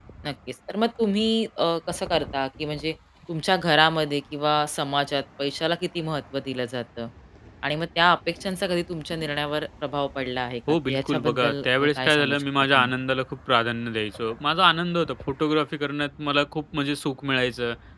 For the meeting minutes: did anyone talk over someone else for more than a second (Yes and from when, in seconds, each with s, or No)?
Yes, from 10.7 s